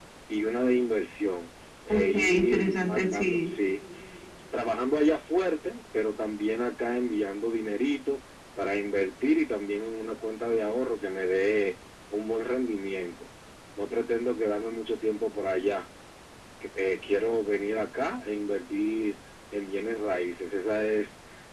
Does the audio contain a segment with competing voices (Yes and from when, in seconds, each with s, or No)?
Yes, from 1.9 s